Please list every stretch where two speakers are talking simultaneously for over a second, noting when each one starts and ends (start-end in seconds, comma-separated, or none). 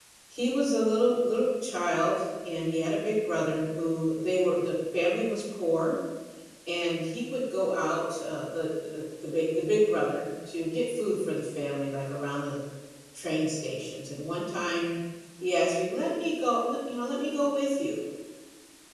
none